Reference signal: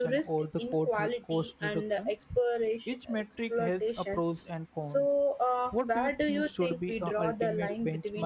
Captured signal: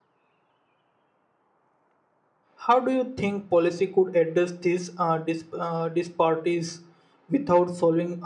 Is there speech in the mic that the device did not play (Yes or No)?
Yes